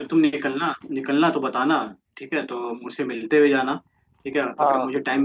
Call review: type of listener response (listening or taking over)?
listening